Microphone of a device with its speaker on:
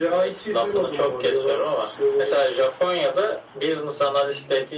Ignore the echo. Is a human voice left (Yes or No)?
No